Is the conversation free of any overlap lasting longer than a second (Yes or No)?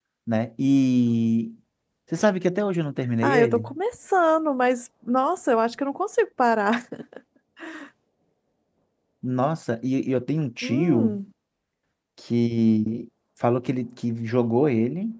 Yes